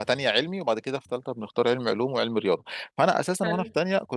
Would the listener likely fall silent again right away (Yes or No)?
Yes